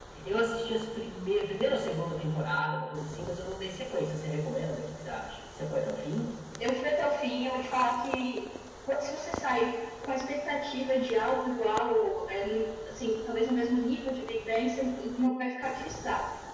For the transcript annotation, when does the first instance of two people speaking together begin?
none

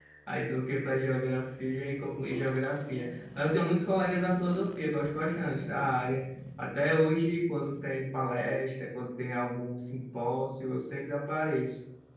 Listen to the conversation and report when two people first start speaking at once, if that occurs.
none

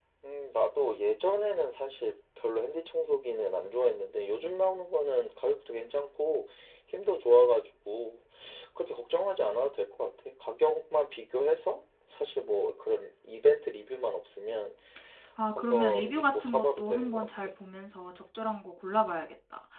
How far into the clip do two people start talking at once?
15.6 s

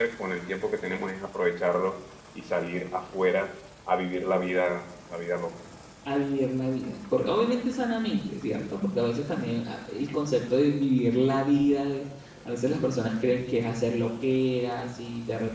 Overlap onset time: none

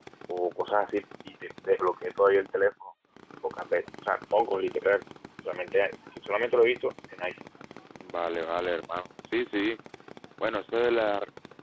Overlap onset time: none

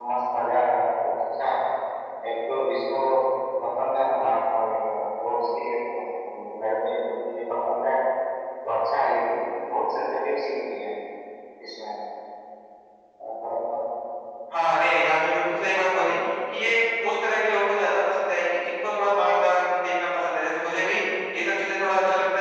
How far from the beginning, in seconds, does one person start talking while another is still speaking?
none

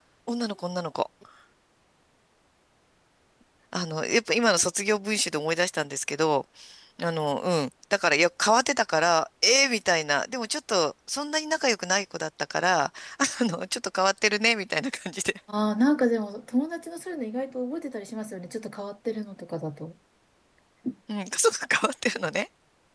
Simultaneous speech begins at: none

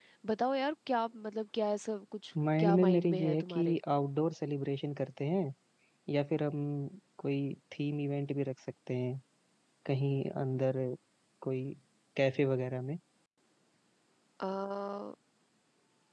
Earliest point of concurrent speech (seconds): 2.4 s

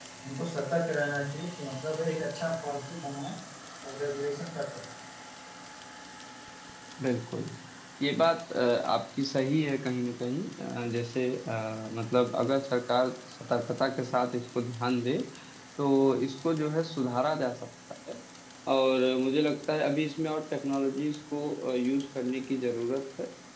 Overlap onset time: none

